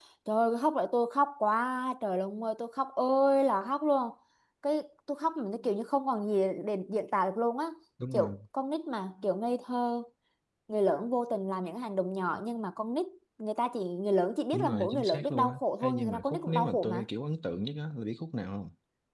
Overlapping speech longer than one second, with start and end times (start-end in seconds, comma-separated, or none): 14.5-17.0